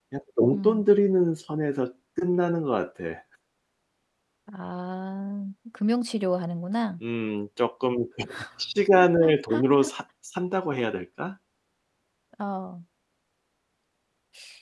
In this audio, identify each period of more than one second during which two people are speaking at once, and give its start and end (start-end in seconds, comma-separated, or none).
none